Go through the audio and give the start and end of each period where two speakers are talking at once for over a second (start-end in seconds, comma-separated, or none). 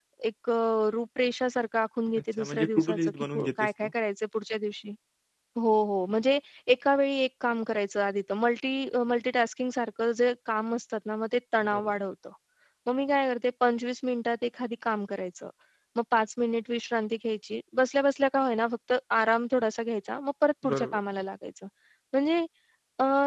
2.4-3.9